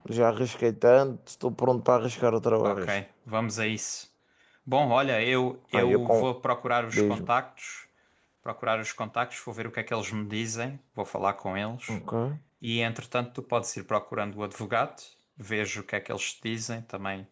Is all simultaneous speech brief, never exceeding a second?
Yes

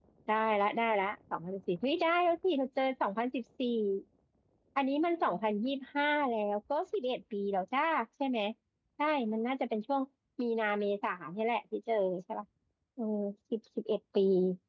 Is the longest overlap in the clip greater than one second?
No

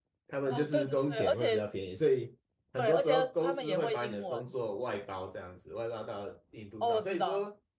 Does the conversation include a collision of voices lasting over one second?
Yes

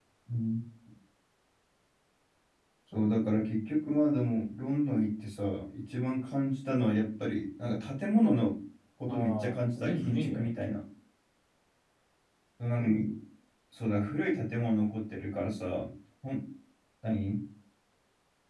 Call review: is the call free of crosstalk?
No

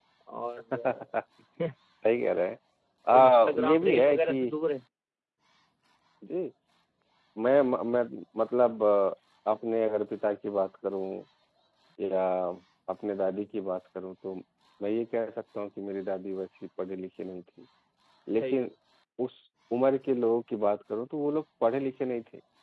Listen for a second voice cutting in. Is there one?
Yes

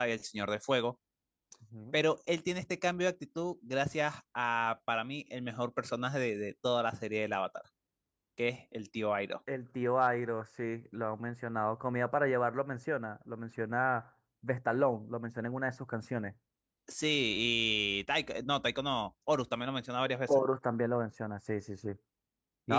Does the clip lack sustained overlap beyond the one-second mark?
Yes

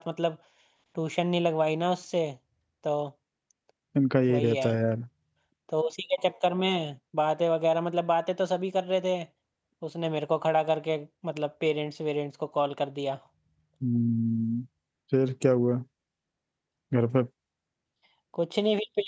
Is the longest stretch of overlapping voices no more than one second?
Yes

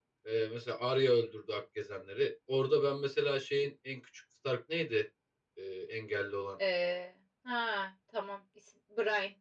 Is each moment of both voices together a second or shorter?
Yes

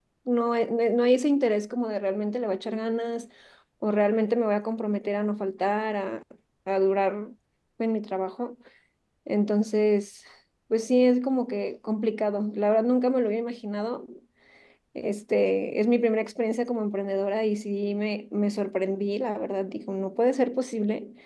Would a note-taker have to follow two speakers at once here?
No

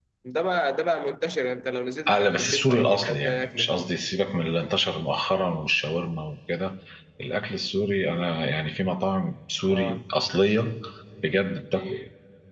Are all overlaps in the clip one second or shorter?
No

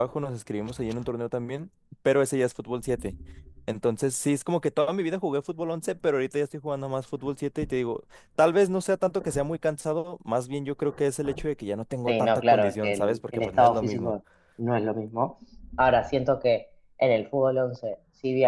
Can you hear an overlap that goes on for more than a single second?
Yes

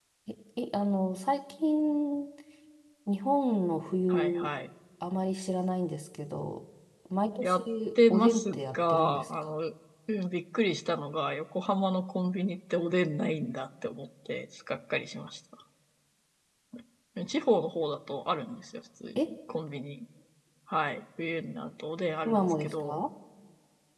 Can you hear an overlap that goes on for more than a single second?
Yes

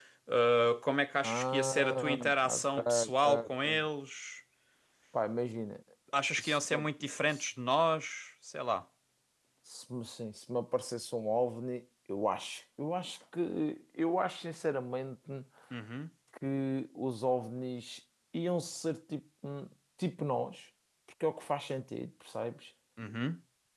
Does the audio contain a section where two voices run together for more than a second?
Yes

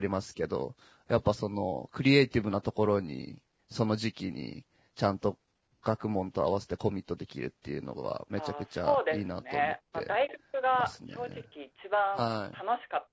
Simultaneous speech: Yes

